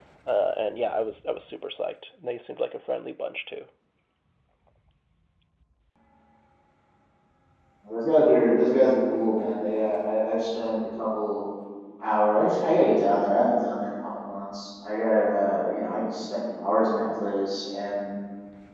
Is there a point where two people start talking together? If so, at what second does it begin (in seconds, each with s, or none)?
none